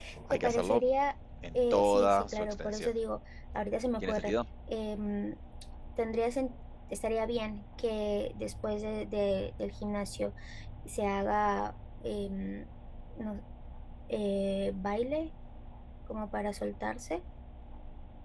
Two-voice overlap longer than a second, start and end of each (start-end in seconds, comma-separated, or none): 1.5-2.9